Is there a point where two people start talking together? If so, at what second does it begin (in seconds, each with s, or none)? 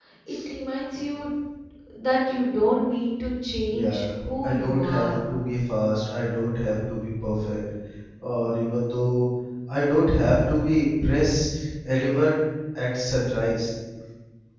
3.7 s